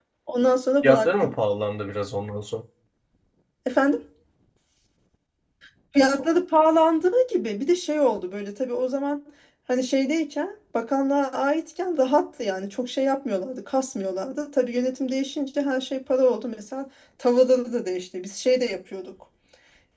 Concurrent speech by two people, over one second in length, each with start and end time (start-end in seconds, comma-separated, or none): none